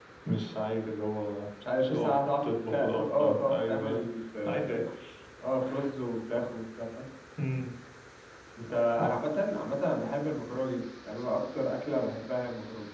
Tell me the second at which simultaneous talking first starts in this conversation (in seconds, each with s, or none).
1.9 s